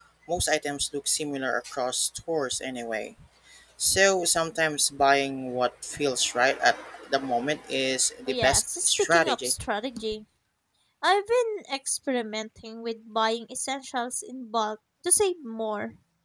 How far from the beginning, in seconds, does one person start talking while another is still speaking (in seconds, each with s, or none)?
8.3 s